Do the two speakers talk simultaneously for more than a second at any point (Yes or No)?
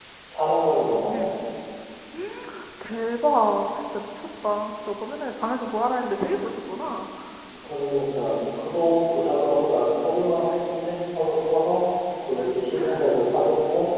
No